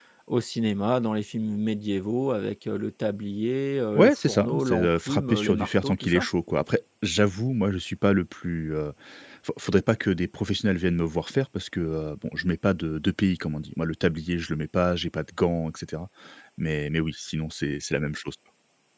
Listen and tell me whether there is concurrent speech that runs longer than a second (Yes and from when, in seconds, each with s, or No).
Yes, from 4.0 s